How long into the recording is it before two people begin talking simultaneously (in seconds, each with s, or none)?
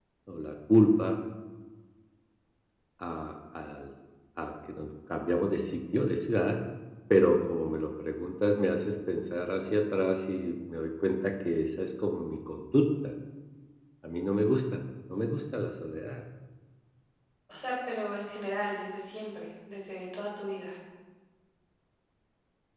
none